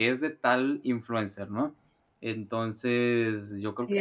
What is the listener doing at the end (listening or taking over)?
taking over